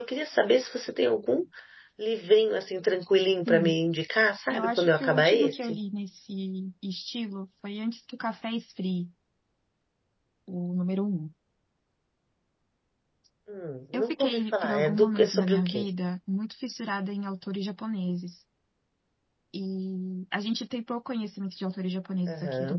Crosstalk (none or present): present